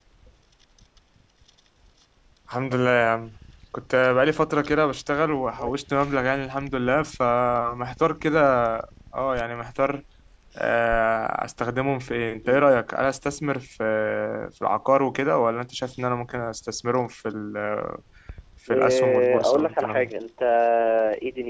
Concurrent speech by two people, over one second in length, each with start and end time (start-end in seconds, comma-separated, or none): 18.7-20.1